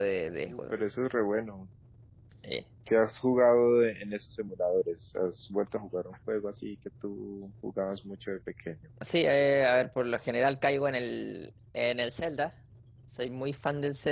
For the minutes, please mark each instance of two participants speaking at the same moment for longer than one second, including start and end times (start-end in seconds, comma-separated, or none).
none